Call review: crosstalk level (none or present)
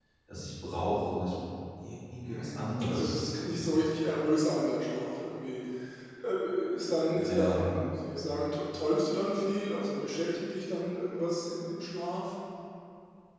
present